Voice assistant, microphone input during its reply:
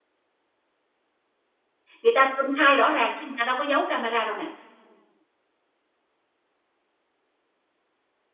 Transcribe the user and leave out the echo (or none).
người ta công khai rõ ràng chứ người ta đâu có giấu camera đâu nè.